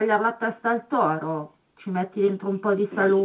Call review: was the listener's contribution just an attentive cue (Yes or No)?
Yes